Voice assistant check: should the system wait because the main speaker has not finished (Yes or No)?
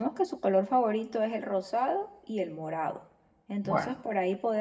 Yes